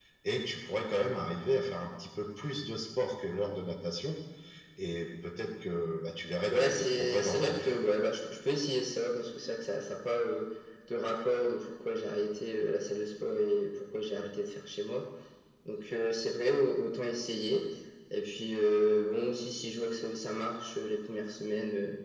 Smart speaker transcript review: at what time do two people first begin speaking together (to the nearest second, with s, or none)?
6 s